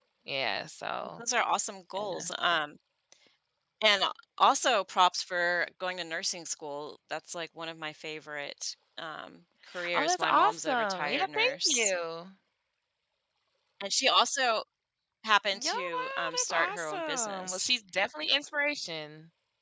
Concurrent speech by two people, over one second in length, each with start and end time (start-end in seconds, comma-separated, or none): 9.9-11.9, 15.5-17.7